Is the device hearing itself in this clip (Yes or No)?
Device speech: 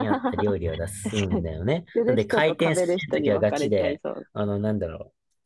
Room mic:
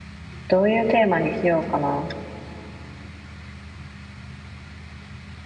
No